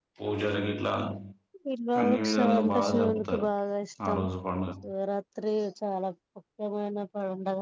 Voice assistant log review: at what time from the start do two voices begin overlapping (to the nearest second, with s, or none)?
2 s